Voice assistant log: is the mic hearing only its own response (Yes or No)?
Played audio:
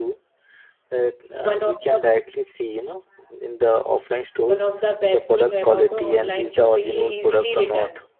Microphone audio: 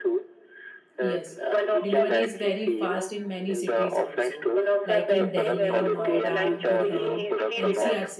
No